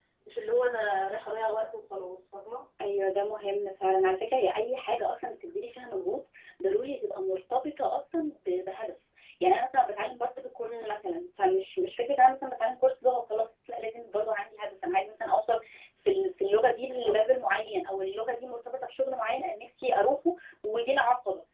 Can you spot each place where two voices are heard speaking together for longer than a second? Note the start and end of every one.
none

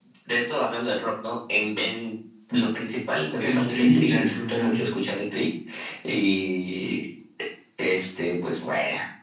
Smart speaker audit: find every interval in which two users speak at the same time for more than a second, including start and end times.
3.4-4.8

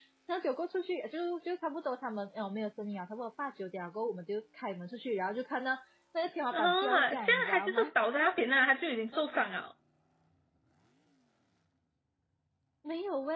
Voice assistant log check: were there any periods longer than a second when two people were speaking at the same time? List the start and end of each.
6.5-7.9

